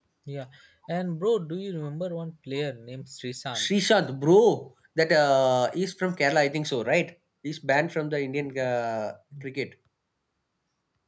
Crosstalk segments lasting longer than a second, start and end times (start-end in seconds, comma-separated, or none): none